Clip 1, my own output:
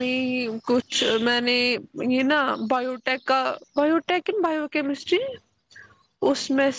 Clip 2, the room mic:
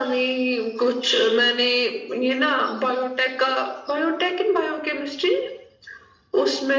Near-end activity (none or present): none